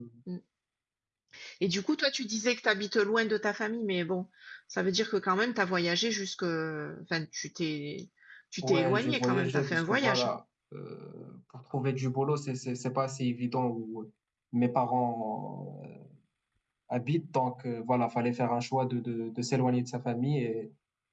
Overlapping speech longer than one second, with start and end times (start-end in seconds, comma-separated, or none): 8.6-10.3